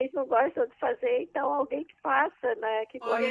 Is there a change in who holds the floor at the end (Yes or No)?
Yes